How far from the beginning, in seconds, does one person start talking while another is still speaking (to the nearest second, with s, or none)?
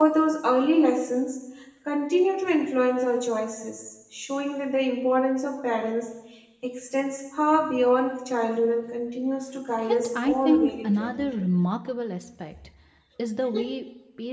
10 s